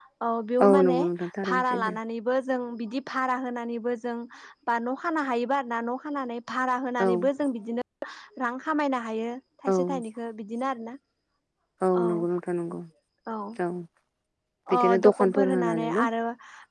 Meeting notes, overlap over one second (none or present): present